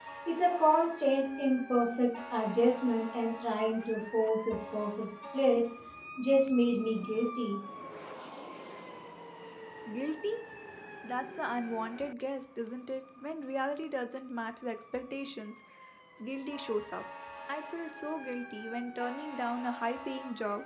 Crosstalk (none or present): none